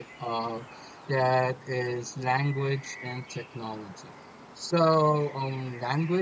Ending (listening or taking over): listening